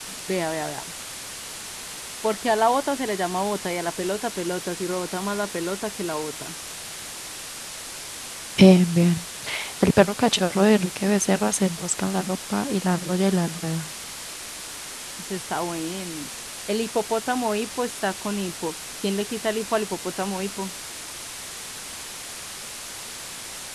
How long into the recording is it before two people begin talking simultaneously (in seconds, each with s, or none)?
none